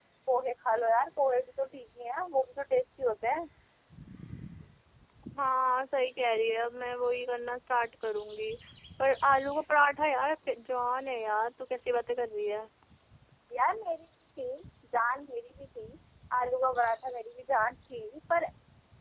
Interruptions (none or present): none